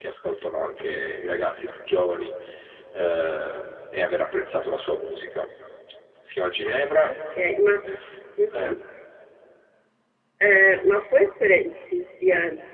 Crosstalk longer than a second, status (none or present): none